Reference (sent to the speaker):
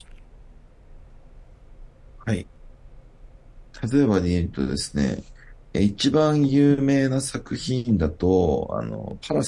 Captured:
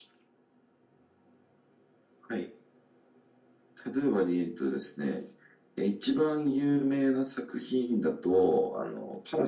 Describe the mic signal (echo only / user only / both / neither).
echo only